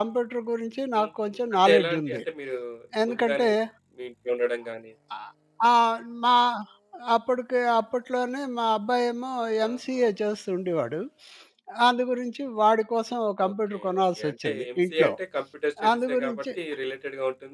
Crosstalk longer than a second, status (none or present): present